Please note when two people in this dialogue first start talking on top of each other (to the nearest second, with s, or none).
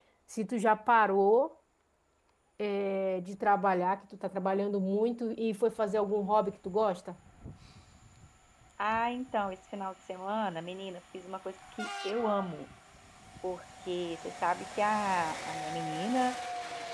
none